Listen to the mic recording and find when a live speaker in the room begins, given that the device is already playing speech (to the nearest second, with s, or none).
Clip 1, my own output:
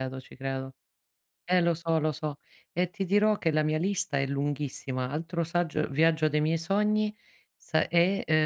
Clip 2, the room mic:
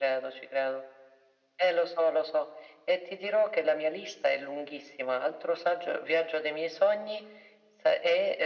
none